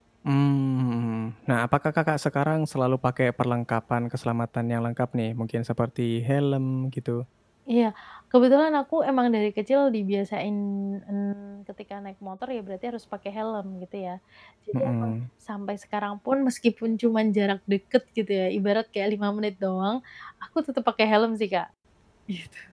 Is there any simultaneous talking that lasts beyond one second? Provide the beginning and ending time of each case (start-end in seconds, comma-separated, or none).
none